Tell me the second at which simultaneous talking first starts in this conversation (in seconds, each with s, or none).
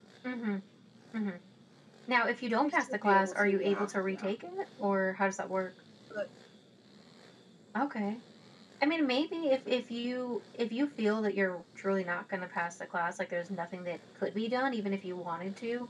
2.6 s